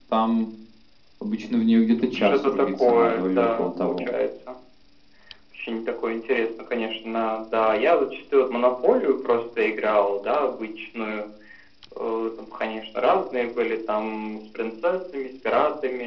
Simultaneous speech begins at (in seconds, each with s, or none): 2.1 s